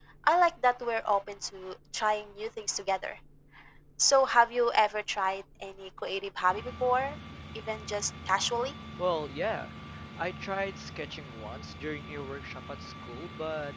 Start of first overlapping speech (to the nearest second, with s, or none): none